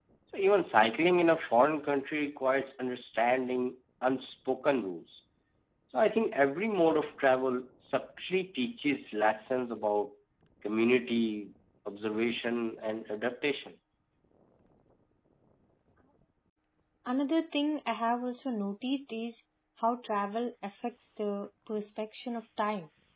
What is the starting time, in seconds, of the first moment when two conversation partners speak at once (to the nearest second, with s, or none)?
none